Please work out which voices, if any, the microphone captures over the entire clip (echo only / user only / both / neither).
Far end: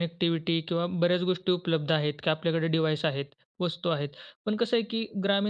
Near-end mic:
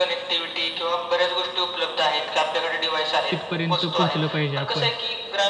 both